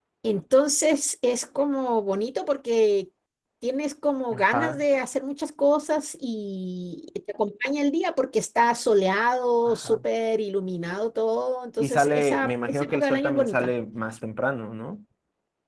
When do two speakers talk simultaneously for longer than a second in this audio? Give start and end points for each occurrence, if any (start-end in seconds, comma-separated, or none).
11.8-13.7